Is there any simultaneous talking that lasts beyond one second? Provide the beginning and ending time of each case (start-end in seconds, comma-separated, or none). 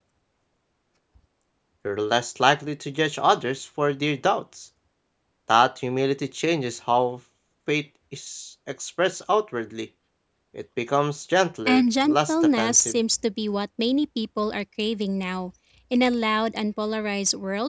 11.7-13.0